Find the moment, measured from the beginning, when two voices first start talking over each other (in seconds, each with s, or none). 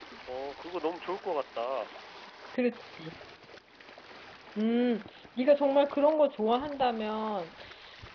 none